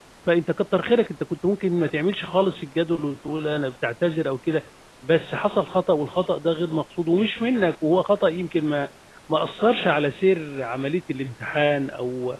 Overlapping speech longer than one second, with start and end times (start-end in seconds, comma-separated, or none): none